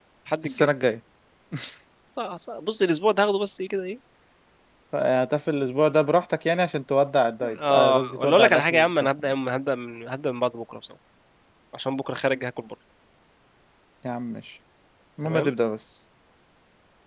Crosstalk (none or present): present